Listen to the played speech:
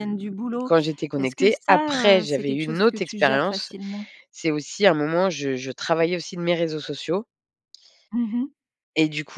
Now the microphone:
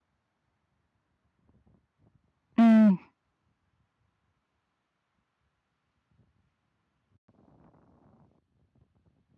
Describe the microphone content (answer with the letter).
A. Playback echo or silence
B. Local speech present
B